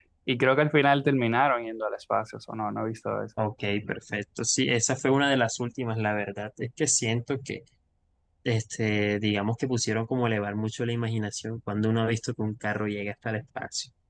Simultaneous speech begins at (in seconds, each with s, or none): none